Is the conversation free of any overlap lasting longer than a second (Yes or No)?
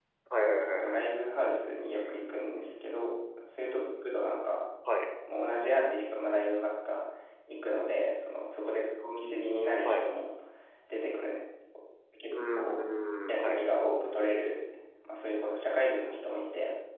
Yes